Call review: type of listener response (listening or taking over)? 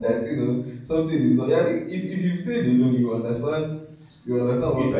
taking over